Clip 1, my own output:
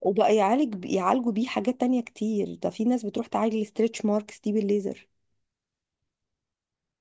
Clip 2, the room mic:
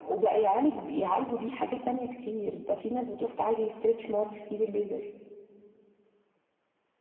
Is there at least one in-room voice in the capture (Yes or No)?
No